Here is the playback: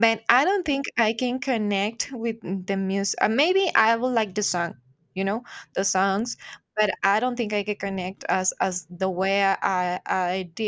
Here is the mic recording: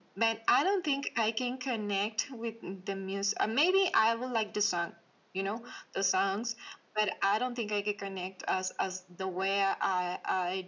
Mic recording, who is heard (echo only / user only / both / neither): both